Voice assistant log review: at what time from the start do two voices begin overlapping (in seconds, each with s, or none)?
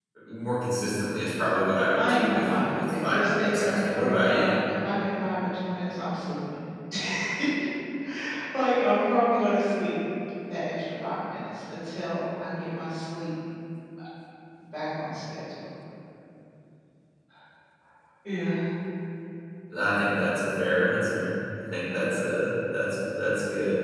2.0 s